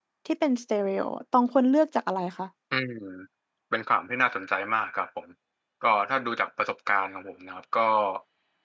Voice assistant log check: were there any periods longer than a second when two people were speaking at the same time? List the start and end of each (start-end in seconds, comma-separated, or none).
none